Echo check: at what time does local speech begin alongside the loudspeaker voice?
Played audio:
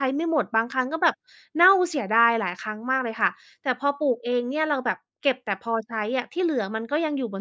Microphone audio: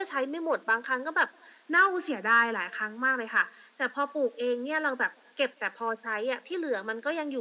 none

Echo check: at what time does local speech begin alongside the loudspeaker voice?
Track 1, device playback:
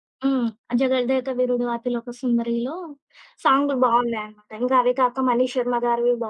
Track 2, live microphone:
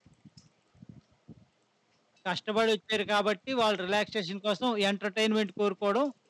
2.3 s

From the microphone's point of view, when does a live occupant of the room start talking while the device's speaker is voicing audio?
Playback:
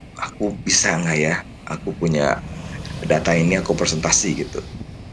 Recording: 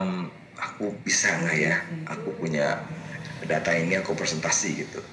1.3 s

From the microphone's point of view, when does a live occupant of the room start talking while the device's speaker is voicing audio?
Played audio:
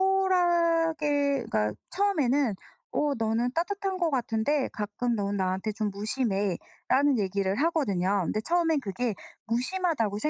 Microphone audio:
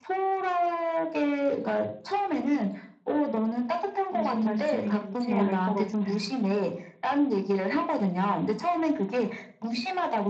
4.1 s

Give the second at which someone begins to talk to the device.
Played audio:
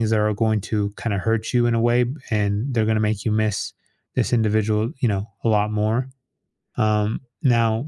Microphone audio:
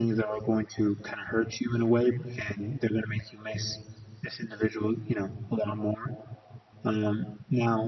none

